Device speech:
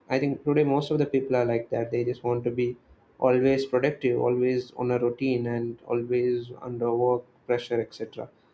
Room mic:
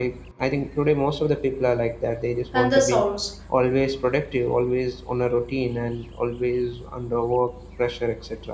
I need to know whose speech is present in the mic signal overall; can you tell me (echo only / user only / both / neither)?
both